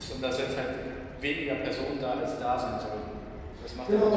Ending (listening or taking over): taking over